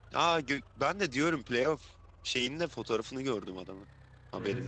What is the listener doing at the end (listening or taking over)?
taking over